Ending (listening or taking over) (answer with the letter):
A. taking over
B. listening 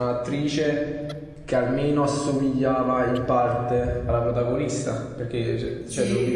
B